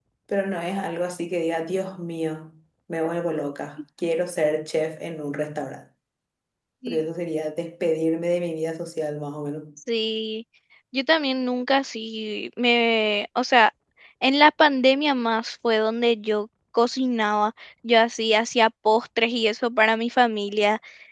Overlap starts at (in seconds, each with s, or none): none